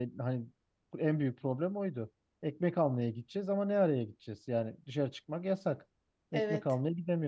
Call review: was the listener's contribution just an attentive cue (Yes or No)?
Yes